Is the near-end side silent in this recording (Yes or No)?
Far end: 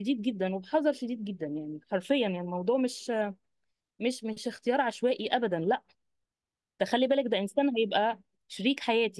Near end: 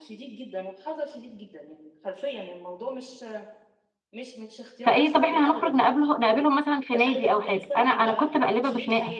No